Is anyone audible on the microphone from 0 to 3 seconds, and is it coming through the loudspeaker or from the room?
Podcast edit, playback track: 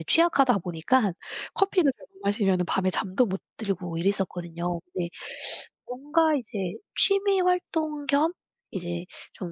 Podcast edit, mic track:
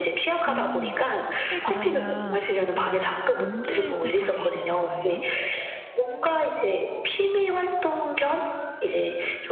both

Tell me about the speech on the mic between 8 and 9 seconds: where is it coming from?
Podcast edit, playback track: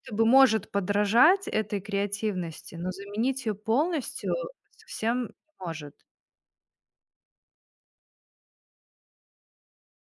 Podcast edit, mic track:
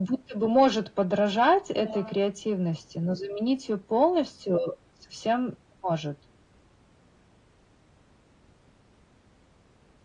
neither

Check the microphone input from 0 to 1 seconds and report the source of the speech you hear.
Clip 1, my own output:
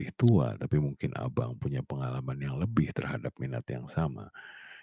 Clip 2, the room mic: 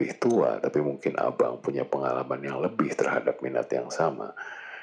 echo only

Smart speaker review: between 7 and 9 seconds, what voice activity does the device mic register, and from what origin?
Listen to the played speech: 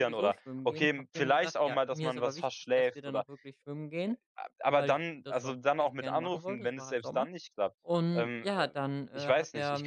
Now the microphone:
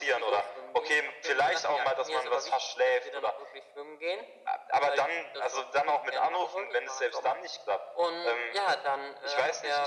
echo only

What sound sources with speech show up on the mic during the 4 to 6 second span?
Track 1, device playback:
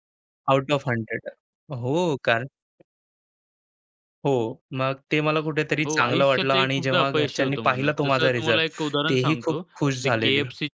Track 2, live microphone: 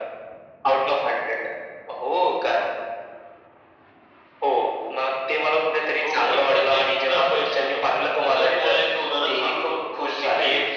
echo only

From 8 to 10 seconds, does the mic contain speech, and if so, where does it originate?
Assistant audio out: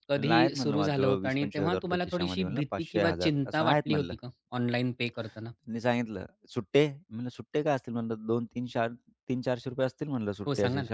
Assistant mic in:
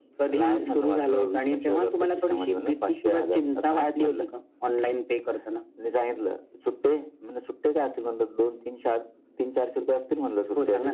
echo only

